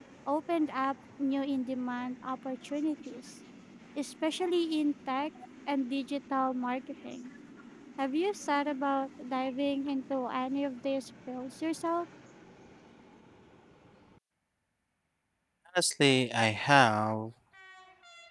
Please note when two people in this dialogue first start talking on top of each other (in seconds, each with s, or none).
none